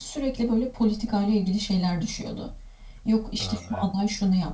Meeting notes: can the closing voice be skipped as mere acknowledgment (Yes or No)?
Yes